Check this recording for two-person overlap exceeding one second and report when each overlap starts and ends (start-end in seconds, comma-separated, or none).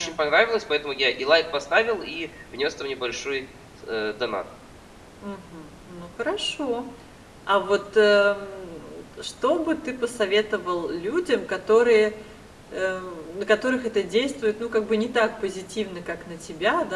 none